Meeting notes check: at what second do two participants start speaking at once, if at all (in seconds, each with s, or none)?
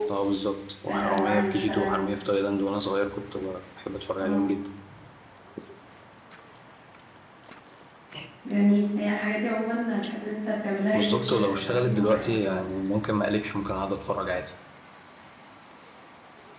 0.9 s